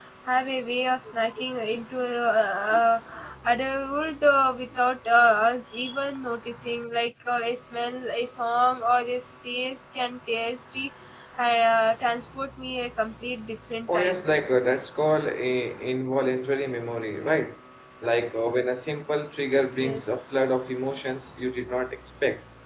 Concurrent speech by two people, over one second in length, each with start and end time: none

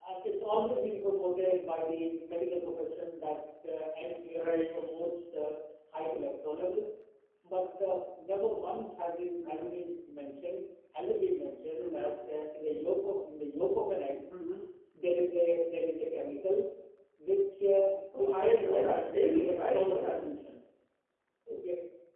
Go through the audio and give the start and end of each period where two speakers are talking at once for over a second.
18.2-20.2

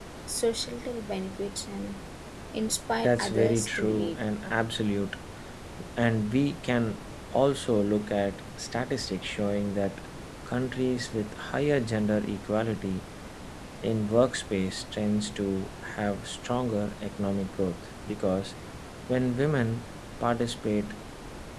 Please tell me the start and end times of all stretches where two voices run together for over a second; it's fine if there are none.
3.0-4.2

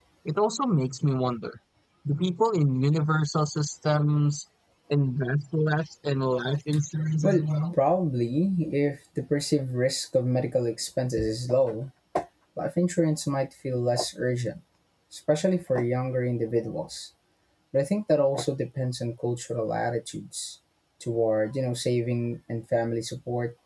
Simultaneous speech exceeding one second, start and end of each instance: none

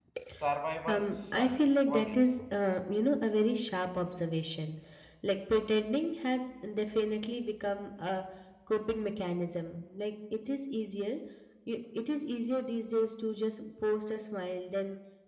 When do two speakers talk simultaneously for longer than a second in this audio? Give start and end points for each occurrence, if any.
0.9-2.8

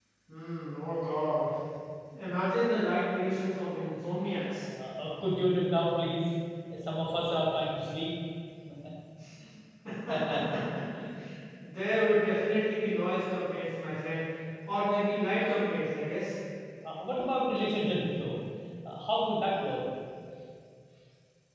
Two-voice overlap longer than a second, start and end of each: none

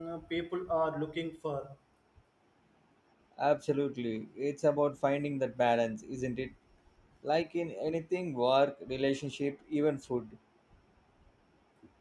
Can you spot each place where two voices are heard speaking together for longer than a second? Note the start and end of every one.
none

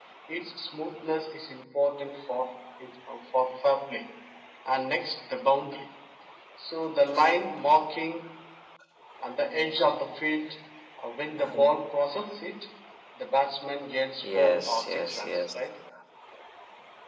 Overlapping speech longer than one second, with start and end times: 14.2-15.5

